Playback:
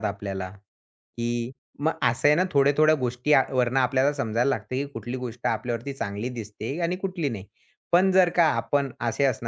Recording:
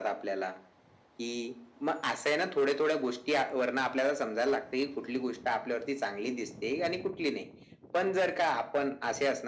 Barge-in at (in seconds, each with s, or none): none